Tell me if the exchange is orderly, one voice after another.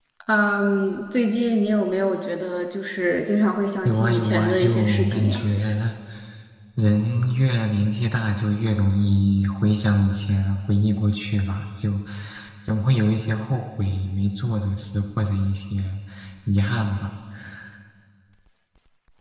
No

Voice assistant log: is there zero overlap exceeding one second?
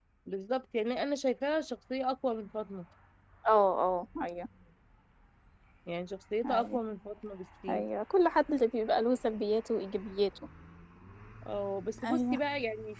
Yes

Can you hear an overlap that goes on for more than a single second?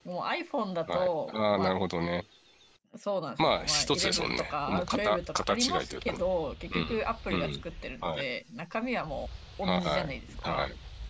Yes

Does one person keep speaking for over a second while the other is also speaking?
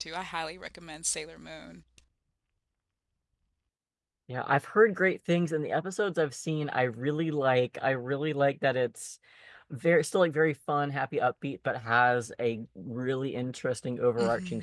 No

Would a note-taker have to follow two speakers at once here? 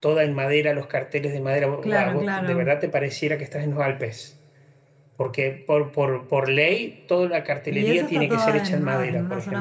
Yes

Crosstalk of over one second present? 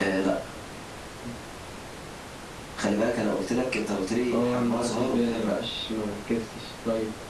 Yes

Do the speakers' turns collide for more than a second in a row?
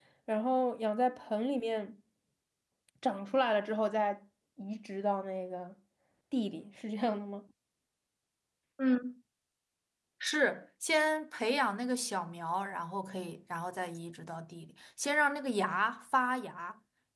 No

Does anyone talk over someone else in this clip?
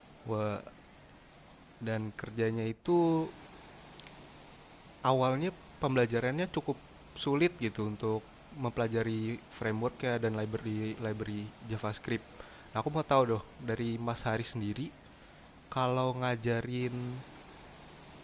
No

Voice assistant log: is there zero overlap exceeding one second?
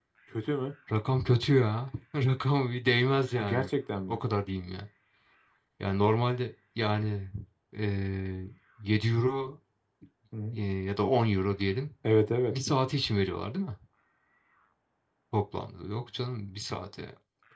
Yes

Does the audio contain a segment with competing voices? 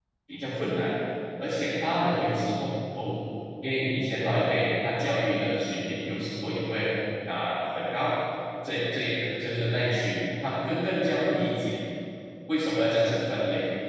No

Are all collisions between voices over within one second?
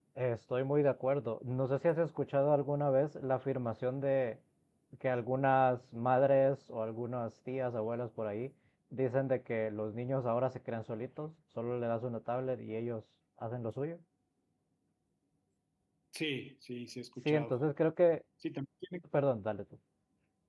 Yes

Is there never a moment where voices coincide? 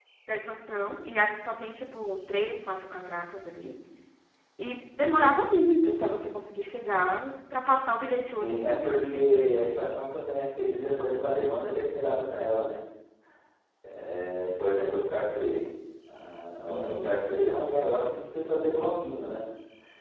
No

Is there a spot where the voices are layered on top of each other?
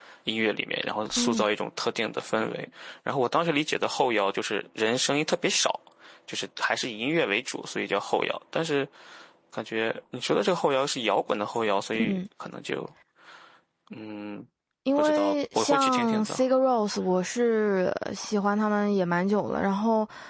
Yes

